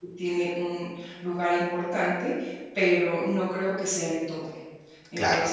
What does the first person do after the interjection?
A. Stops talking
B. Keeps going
B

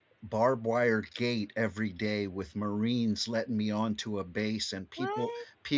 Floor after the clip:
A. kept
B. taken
A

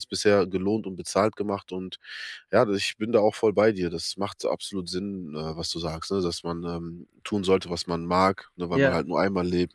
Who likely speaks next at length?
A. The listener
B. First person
B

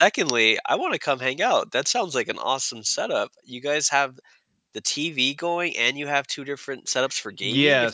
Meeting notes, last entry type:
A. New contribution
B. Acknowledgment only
A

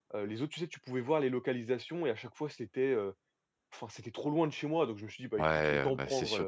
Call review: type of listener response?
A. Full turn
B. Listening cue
A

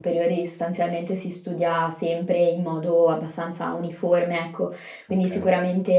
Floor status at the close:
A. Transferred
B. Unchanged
B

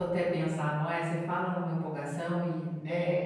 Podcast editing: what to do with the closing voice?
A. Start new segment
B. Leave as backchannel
A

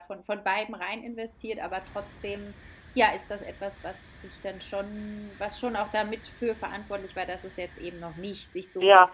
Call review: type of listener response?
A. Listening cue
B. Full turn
B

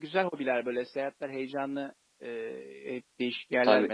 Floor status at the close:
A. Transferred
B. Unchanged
B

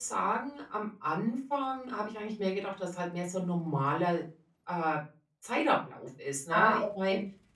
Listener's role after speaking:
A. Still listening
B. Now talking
A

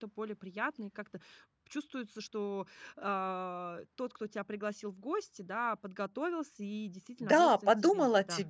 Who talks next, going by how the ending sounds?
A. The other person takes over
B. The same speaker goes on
A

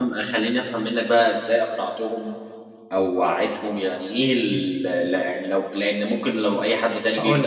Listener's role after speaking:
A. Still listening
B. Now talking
A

